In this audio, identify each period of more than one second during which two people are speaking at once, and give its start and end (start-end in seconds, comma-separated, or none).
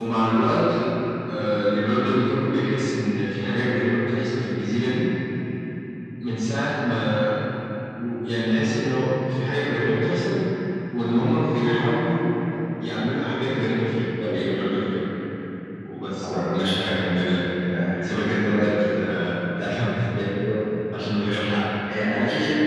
none